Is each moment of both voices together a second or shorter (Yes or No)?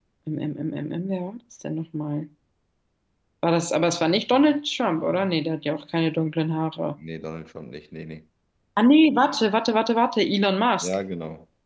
Yes